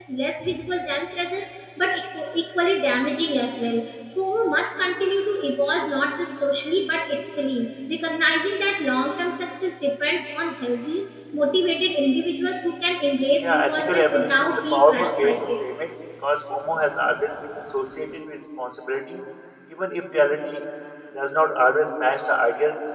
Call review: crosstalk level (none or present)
present